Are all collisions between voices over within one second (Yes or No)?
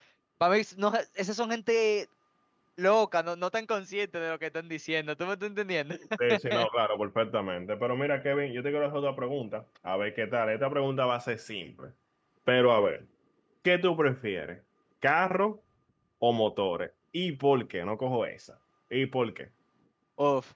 Yes